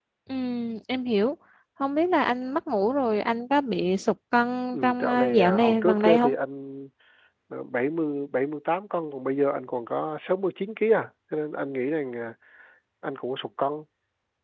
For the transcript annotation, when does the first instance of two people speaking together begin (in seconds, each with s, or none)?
4.7 s